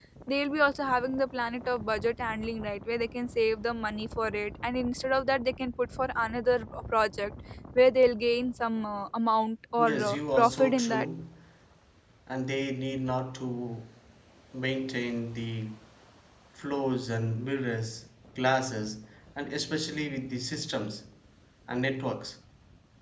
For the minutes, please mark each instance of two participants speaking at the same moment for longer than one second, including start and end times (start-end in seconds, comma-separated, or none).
9.8-11.1